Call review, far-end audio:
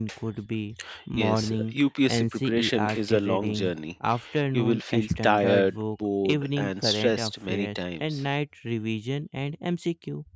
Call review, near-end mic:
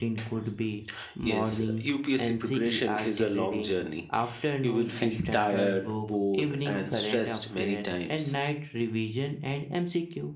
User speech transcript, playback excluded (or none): none